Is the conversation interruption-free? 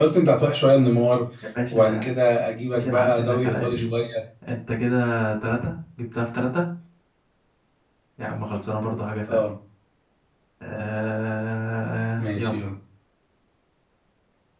No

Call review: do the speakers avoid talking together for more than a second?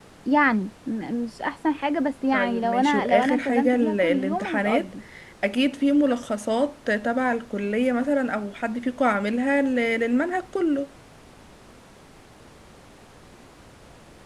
No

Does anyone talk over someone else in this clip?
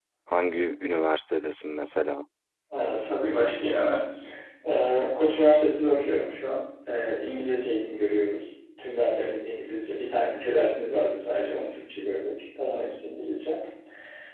No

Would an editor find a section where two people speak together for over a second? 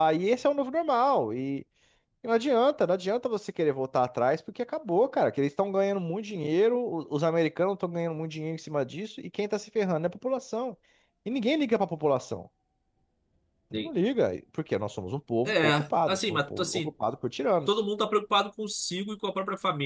Yes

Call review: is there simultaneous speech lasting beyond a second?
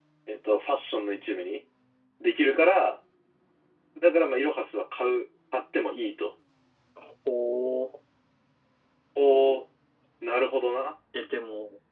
No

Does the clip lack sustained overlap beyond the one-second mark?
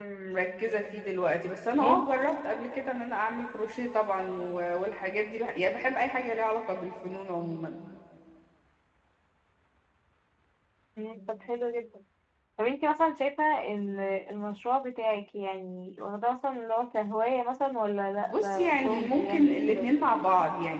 No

